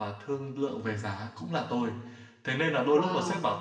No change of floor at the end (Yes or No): Yes